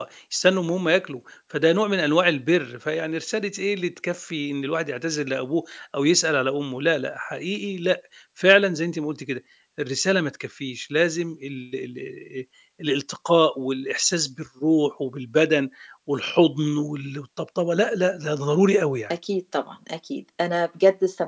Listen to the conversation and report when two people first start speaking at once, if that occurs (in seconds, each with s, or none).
none